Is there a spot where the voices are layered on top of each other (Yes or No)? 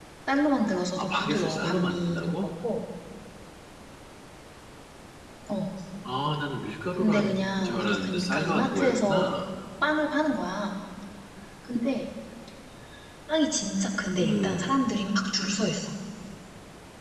Yes